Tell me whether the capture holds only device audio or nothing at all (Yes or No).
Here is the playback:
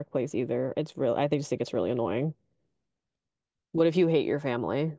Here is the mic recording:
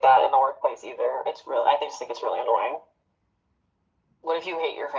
Yes